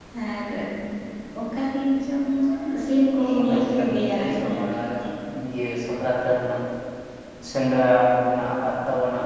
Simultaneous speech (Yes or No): Yes